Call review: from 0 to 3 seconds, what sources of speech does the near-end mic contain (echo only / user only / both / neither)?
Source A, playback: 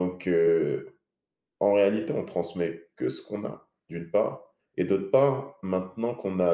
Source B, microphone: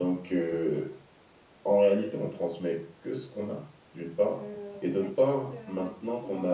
echo only